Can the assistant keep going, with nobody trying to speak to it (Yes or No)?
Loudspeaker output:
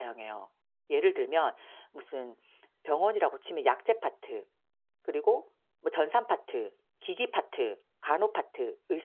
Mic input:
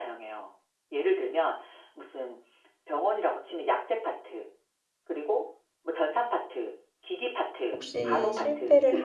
No